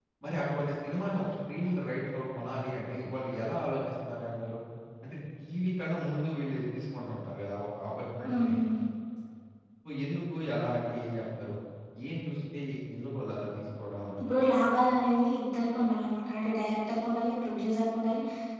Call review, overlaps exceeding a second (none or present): none